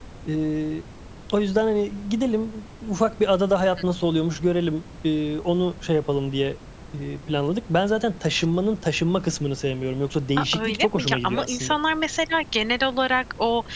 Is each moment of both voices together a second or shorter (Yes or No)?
No